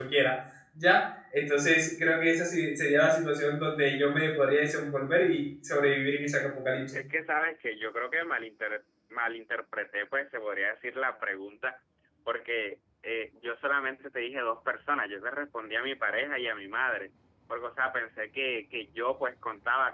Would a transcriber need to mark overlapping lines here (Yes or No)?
No